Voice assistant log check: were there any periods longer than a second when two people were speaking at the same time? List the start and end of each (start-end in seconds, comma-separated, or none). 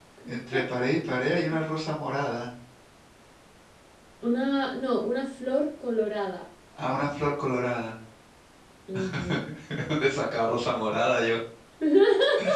none